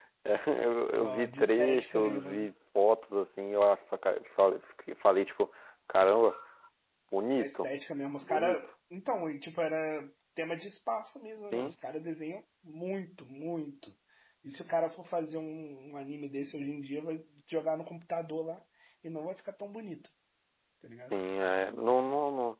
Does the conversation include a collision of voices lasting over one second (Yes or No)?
Yes